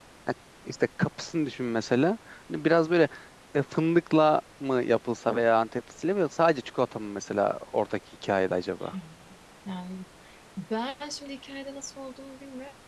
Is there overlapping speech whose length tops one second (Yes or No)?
No